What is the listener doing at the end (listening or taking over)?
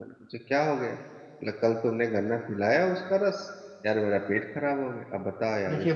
taking over